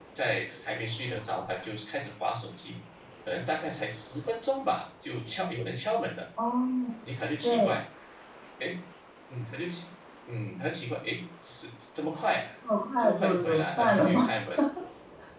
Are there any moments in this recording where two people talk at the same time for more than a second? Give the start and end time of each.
13.0-14.2

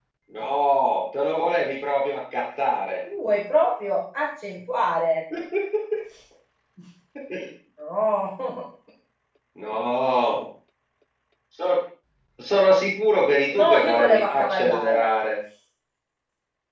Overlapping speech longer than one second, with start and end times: 13.5-15.1

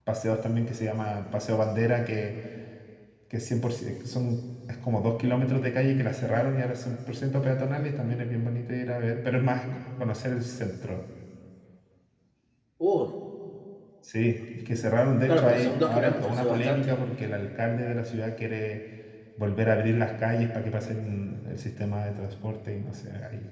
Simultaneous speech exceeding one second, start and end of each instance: 15.3-16.9

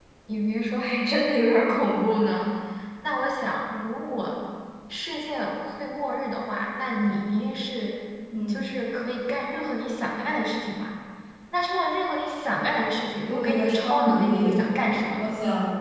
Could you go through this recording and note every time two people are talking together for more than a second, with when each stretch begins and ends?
13.2-14.7

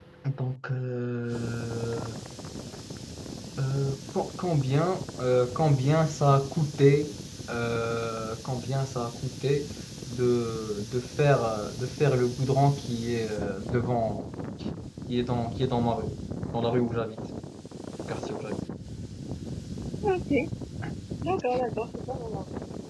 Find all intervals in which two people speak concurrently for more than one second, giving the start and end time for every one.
none

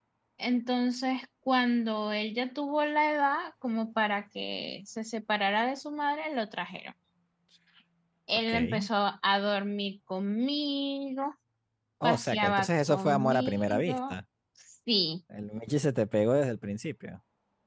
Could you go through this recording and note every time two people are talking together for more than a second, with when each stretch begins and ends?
12.0-14.1

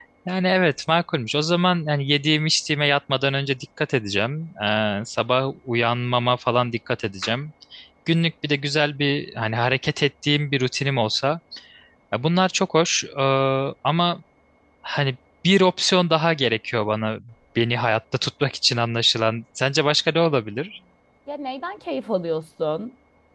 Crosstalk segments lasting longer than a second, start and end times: none

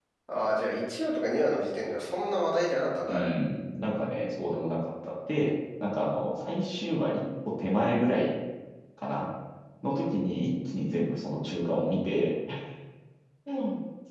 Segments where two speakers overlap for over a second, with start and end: none

